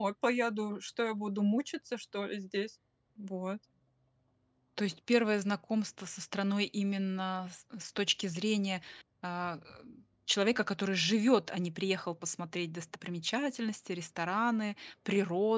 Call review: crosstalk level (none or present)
none